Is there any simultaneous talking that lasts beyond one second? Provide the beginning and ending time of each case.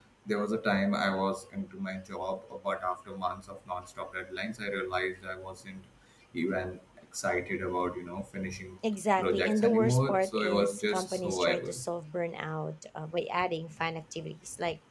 9.2-11.8

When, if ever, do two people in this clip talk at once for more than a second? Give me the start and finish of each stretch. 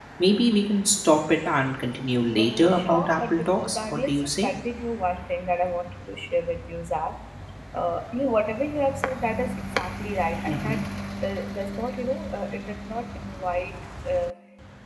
2.4-4.5

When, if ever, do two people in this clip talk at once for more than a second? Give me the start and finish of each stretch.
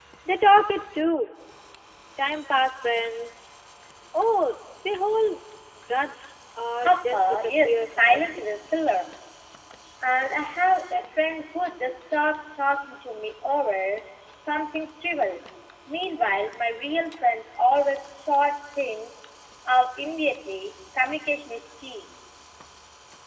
6.8-8.2

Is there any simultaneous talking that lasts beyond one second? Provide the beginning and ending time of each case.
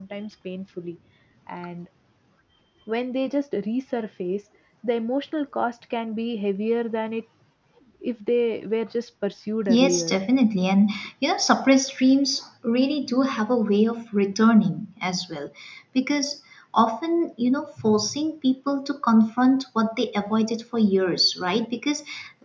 none

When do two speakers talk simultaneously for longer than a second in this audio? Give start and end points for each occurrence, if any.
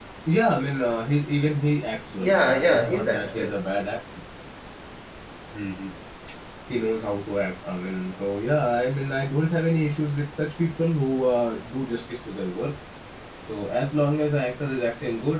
2.2-3.7

